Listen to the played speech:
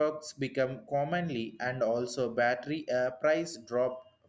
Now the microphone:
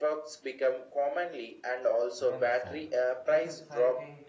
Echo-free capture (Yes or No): No